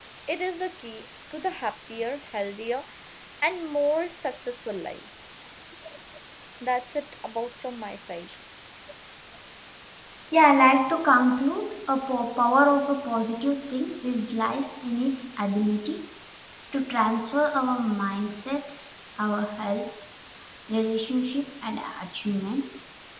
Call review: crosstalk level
none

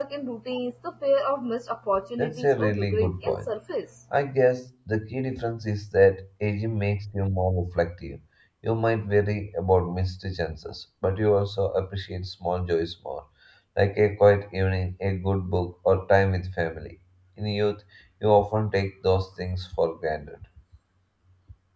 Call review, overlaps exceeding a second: present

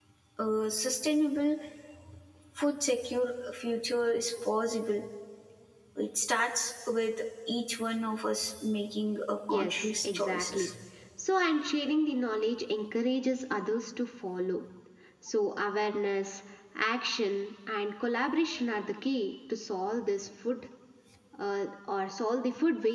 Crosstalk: present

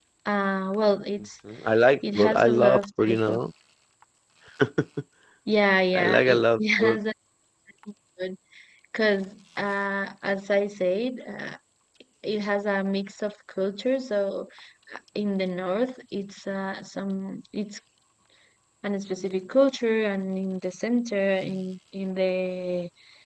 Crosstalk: present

